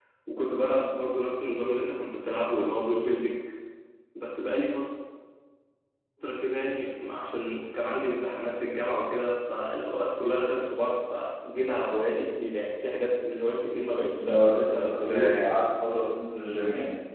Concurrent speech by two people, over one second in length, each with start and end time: 14.2-15.5

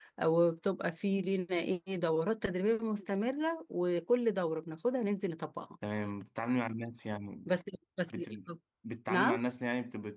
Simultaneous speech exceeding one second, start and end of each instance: none

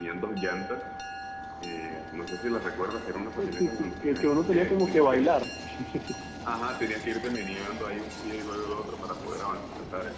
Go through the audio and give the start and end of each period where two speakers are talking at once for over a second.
3.4-5.3

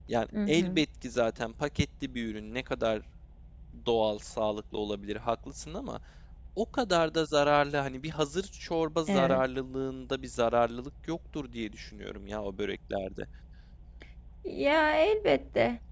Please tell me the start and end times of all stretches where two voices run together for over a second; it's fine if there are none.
none

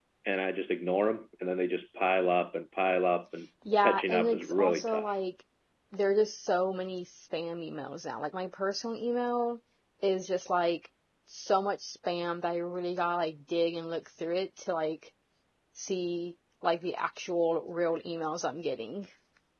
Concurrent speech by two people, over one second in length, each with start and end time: 3.8-5.1

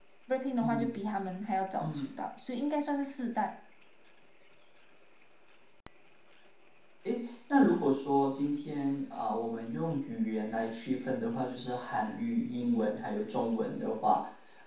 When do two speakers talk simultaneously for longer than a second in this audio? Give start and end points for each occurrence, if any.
none

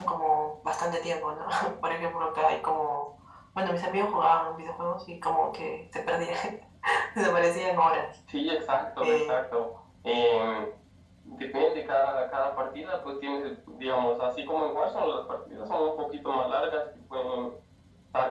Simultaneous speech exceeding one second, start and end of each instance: none

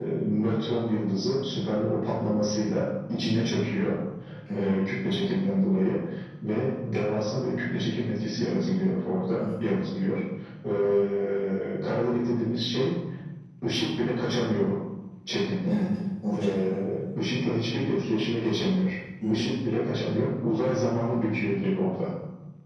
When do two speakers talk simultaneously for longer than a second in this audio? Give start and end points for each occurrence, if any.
none

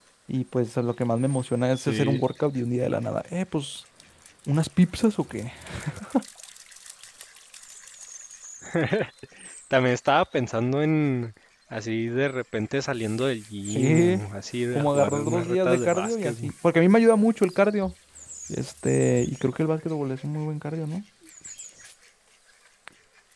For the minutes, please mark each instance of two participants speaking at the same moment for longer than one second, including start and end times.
14.7-16.3

